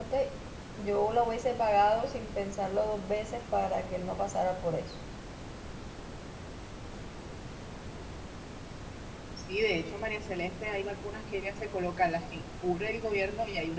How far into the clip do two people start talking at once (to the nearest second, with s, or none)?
none